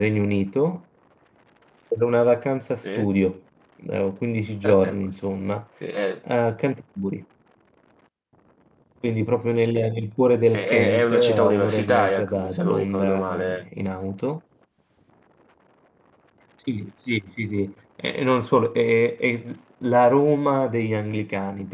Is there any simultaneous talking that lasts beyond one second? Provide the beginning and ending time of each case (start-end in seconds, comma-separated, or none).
10.5-13.7